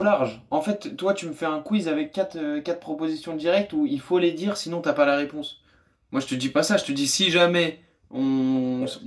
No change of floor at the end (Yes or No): No